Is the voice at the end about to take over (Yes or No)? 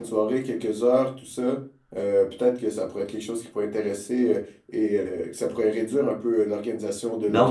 Yes